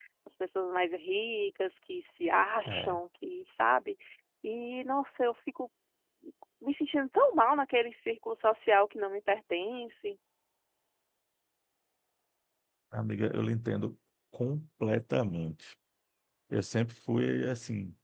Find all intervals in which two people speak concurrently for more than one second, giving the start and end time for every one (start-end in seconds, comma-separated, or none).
none